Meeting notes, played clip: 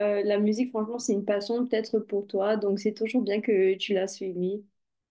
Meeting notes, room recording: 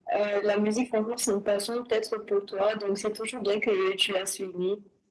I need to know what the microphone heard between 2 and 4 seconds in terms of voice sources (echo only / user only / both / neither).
echo only